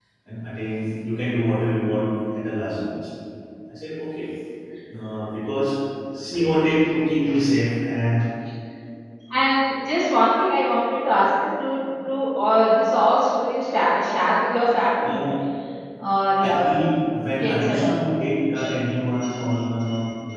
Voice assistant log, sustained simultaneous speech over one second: none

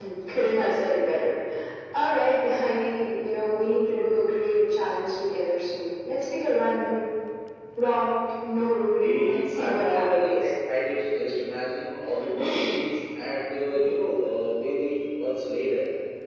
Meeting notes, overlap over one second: present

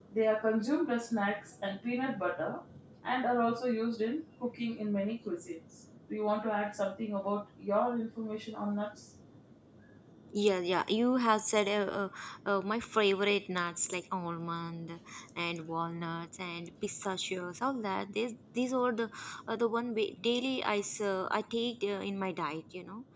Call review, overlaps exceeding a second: none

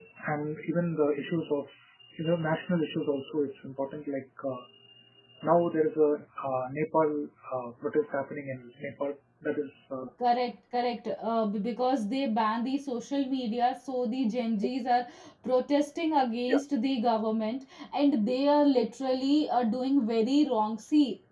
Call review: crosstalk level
none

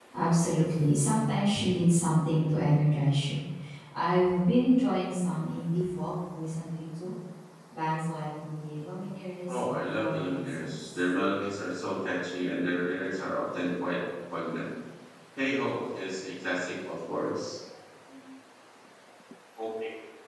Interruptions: present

